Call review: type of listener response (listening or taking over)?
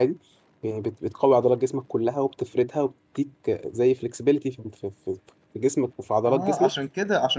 taking over